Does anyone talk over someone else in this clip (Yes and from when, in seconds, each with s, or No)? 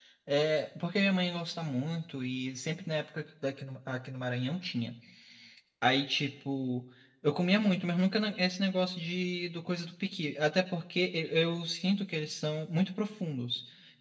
No